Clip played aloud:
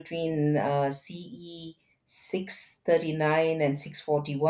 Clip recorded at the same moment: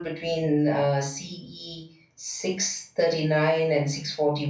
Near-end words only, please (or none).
none